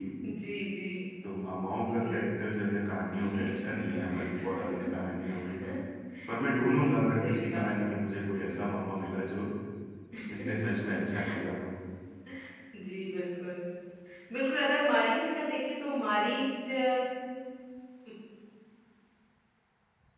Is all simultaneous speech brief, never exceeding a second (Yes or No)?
No